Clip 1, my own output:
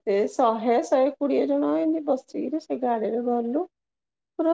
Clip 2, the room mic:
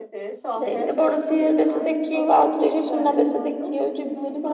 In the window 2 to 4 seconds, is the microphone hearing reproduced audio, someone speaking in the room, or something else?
both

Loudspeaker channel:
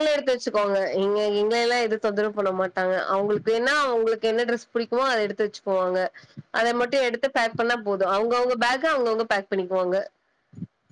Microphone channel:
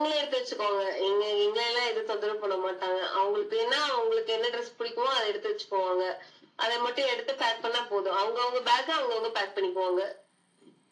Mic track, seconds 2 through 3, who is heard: echo only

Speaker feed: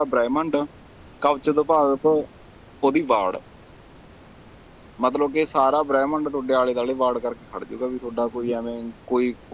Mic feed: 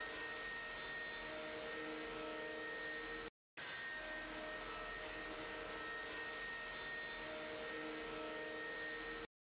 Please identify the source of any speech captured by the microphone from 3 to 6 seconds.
neither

